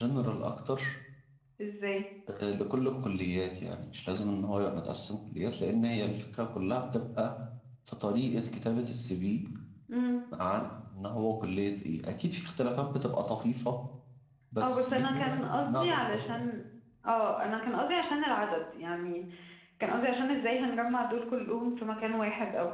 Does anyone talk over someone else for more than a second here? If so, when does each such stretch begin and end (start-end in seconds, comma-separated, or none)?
14.6-16.4